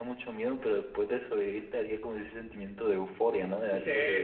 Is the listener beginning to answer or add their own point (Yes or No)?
Yes